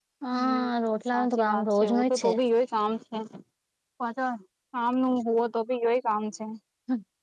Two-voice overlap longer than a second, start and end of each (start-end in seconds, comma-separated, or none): 1.1-2.3